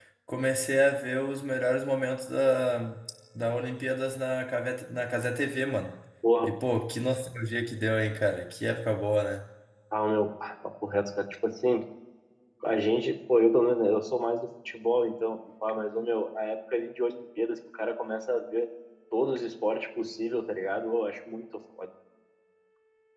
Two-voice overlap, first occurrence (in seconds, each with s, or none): none